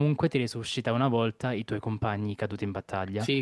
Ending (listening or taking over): taking over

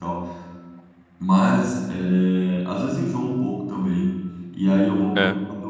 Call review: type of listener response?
listening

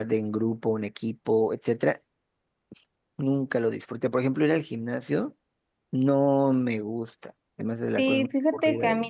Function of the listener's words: taking over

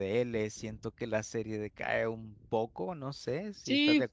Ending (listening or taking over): taking over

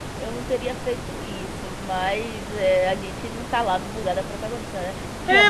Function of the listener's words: taking over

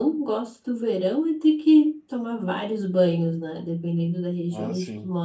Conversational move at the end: listening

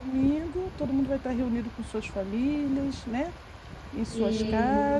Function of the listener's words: listening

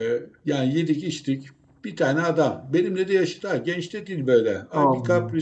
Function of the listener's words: listening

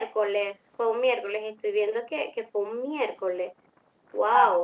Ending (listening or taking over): taking over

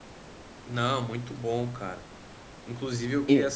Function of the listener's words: listening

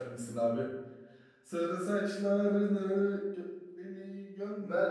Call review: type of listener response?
taking over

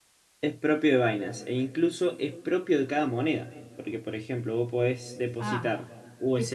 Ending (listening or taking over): taking over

